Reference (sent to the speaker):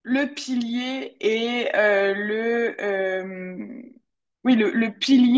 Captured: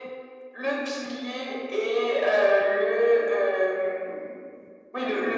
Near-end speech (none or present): none